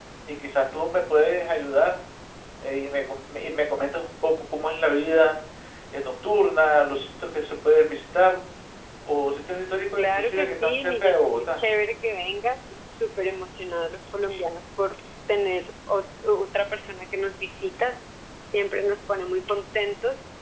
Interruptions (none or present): present